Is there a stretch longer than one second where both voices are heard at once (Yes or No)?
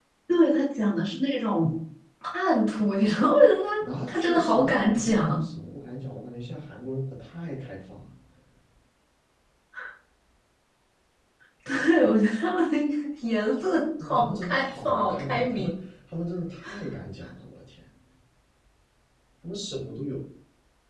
Yes